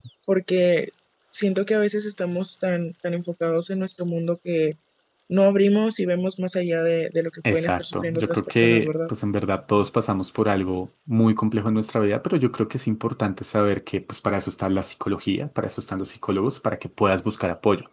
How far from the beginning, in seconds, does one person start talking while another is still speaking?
7 s

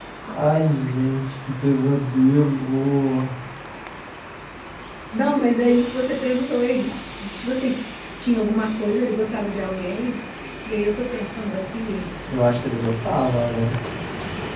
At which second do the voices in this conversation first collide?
none

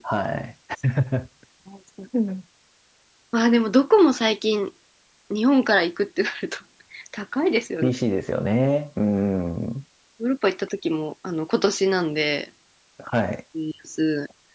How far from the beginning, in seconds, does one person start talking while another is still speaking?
none

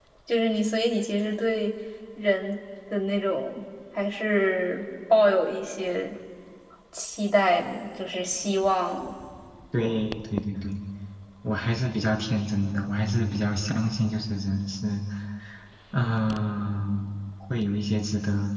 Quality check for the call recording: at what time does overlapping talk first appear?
none

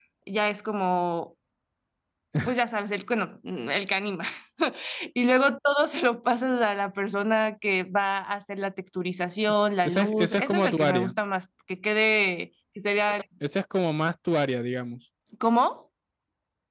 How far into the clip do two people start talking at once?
10 s

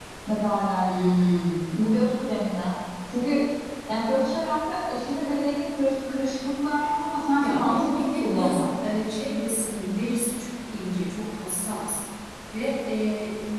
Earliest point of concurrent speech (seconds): 7 s

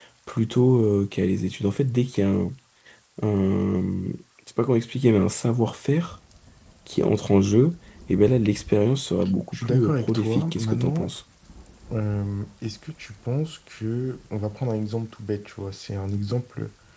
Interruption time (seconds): 10 s

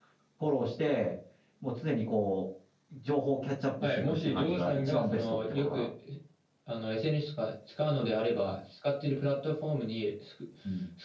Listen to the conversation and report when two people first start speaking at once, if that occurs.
4 s

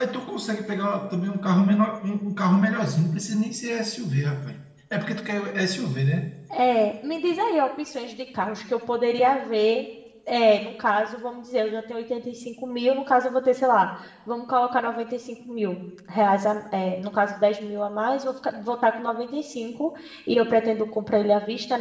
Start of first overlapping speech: none

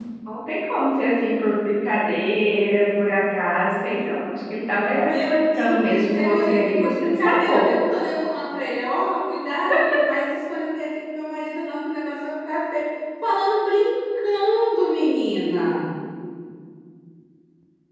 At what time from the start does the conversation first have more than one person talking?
5 s

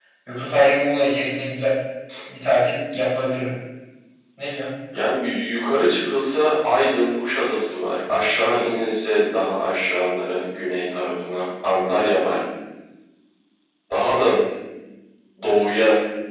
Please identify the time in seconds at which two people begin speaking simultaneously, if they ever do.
none

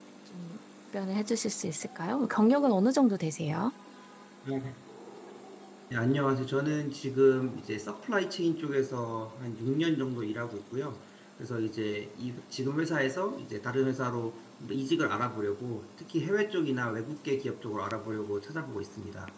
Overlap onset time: none

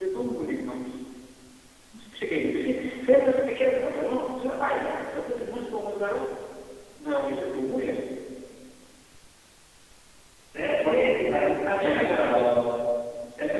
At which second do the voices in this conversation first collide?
11 s

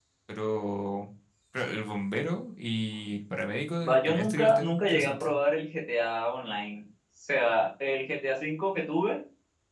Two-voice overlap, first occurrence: 4 s

